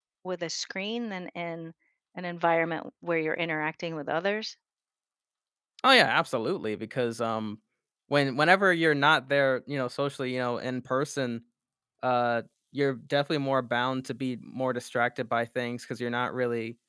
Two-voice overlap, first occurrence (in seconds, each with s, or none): none